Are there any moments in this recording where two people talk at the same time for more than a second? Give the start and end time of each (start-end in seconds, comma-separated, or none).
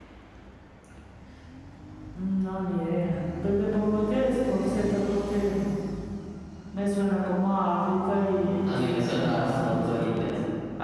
8.7-10.0